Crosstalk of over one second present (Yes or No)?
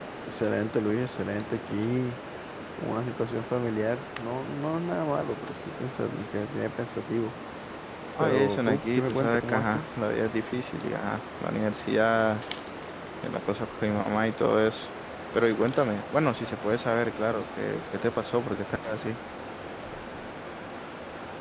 Yes